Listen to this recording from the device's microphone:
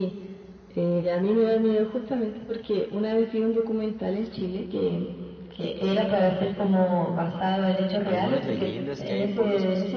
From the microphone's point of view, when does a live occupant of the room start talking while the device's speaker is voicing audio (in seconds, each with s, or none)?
8.0 s